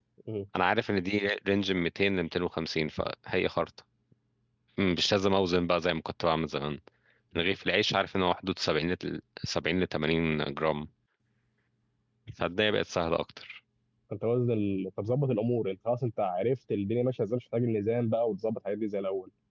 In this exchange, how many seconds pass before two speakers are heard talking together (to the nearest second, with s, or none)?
none